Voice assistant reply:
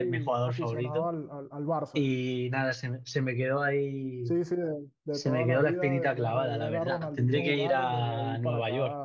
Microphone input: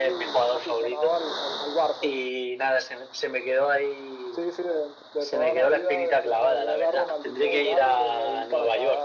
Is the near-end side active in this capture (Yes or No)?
No